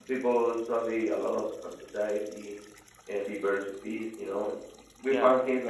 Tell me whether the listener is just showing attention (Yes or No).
Yes